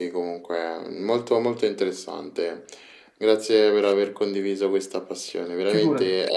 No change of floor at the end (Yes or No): Yes